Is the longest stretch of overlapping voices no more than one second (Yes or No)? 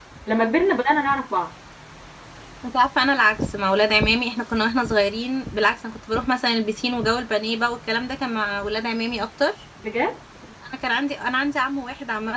Yes